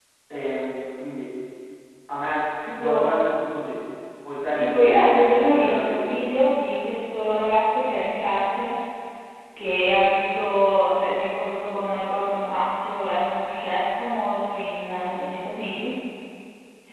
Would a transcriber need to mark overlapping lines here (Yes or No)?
Yes